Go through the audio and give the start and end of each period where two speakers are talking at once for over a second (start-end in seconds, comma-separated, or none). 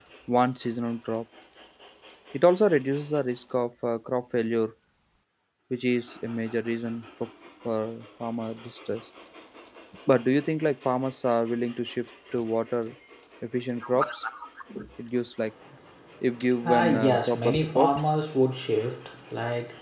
16.7-18.0